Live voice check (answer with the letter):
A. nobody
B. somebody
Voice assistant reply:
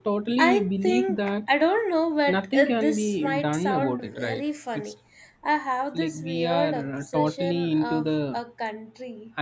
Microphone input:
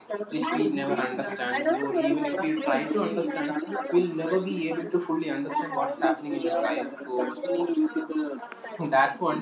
B